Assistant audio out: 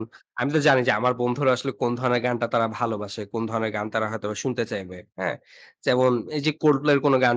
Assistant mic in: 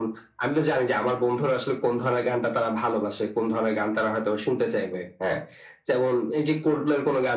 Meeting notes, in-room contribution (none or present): none